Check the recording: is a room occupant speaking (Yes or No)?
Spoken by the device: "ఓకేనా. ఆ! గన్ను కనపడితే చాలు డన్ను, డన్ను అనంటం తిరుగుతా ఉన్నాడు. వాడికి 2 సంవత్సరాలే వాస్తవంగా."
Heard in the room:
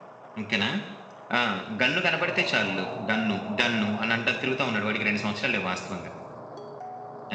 No